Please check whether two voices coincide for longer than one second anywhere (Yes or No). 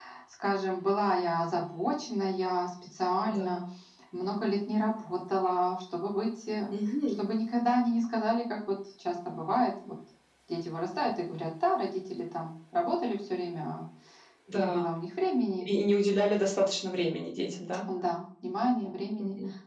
No